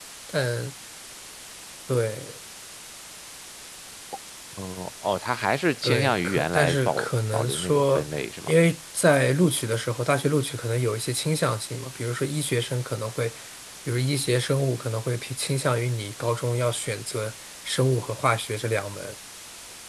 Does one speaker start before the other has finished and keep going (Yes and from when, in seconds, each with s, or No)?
Yes, from 5.8 s